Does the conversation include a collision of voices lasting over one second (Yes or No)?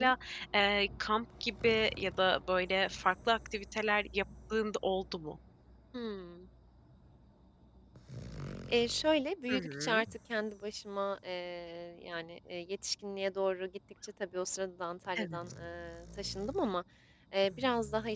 No